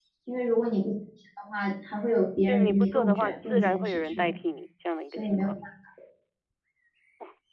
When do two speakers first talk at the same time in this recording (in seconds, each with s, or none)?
2.5 s